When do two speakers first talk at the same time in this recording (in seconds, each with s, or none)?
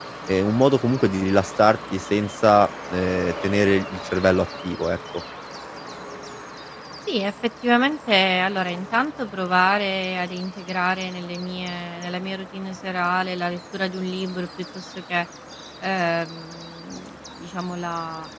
none